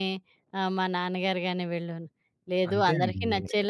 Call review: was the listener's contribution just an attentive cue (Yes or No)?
Yes